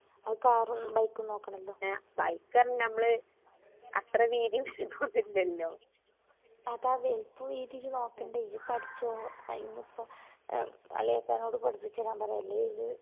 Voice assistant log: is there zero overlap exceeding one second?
Yes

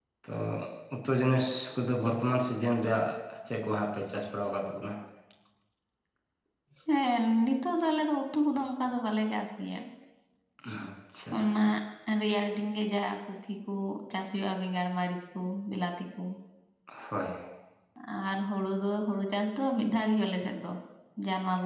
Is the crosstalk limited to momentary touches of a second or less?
Yes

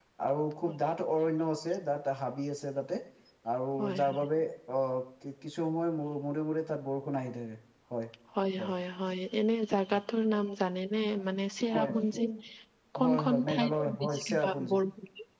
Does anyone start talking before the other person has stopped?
Yes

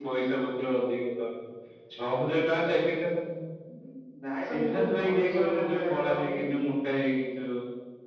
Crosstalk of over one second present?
Yes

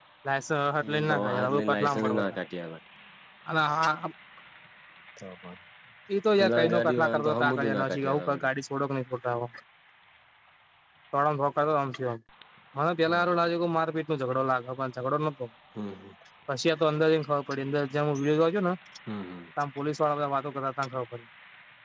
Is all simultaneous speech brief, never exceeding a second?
No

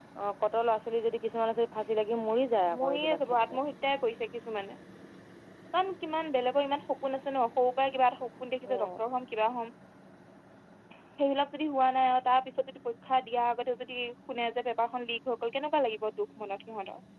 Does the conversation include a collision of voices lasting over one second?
No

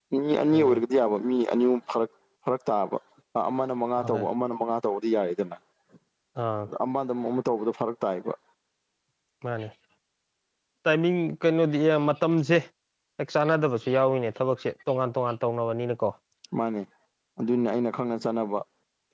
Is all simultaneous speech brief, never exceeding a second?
Yes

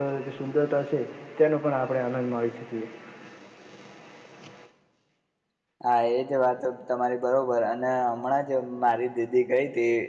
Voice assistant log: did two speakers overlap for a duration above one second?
No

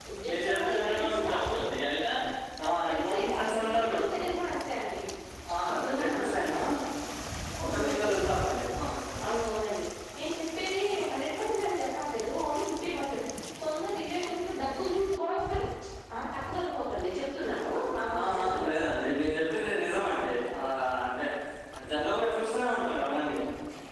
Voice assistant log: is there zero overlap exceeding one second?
No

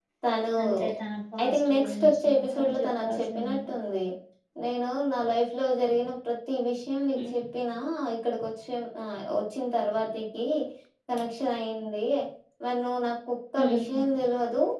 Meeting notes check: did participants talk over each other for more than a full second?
Yes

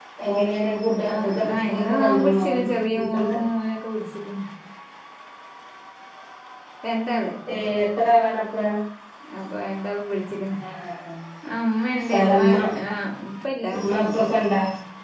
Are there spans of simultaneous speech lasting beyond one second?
Yes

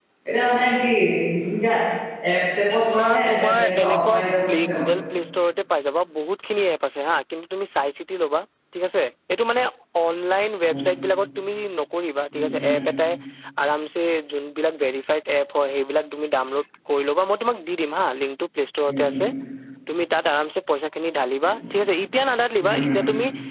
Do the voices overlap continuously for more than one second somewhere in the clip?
Yes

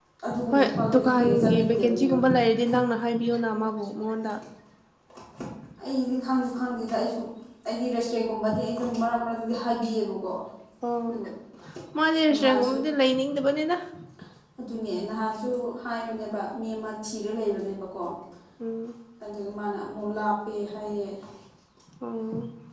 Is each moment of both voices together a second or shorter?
No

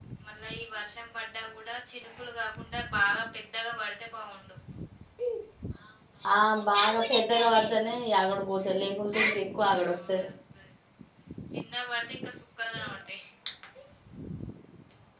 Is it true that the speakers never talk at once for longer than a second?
Yes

